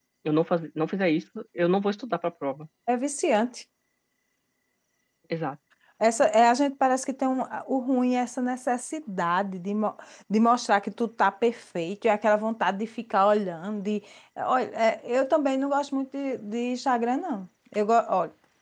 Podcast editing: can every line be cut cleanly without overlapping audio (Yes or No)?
Yes